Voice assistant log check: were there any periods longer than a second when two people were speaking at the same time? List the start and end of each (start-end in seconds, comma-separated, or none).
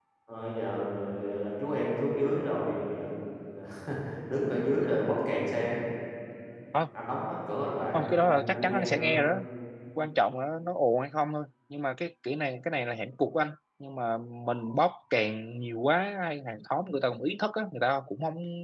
7.9-9.2